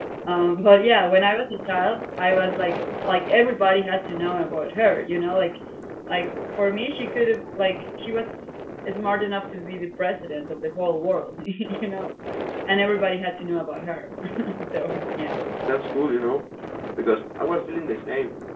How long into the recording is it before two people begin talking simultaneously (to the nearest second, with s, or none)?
none